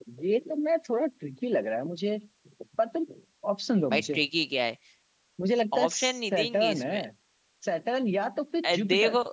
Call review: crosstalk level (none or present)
present